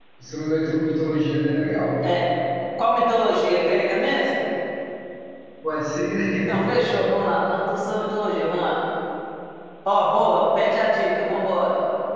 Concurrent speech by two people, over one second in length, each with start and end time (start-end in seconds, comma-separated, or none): none